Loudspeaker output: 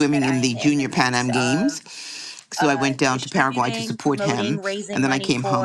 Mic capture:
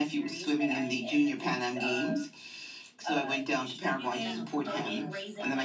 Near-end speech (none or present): present